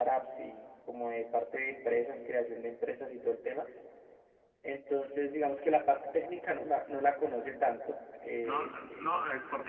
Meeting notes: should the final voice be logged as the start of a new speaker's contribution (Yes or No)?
Yes